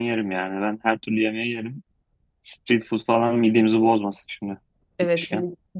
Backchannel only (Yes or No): No